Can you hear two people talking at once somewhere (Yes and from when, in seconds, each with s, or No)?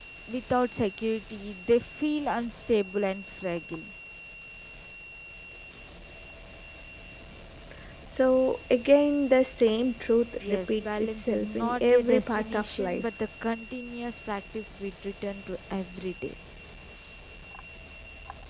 Yes, from 10.4 s